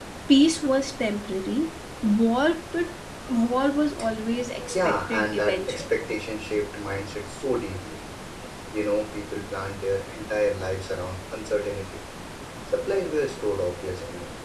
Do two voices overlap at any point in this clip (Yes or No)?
Yes